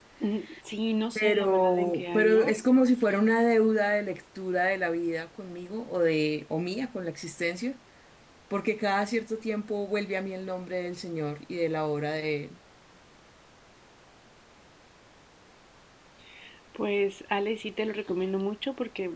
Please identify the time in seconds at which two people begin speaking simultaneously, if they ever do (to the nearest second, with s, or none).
1 s